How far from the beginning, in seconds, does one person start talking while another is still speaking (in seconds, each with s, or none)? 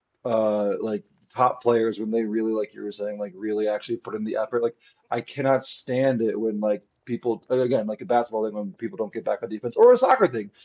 none